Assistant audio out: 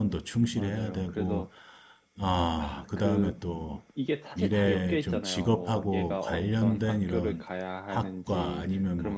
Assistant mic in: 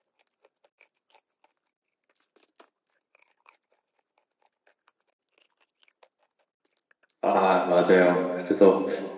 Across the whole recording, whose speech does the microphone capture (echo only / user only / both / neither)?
user only